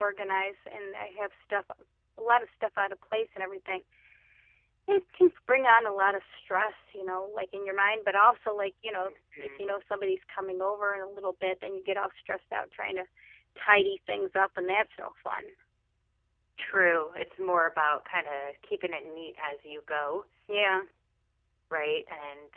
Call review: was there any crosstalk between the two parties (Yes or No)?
No